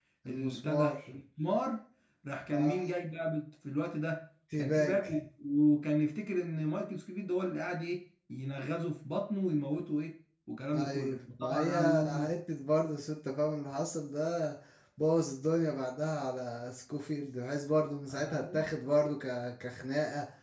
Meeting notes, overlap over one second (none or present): present